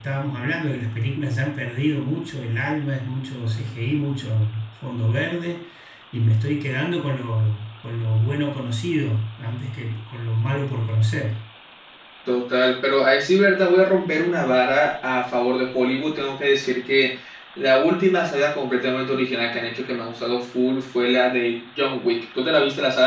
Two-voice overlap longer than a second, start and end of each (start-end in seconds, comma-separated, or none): none